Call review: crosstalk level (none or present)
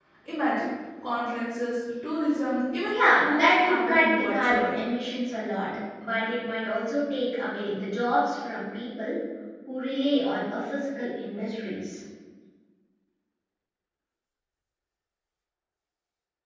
present